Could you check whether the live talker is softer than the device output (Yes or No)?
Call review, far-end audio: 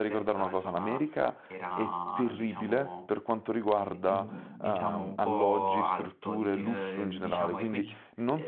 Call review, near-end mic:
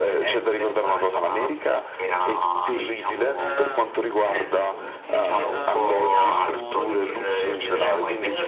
Yes